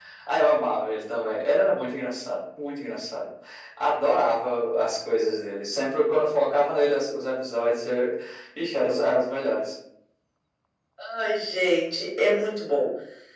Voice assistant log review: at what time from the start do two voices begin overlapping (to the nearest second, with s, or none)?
none